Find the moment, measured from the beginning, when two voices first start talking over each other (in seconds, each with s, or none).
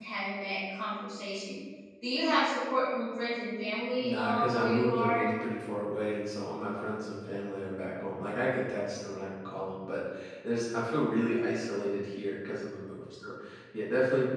4.0 s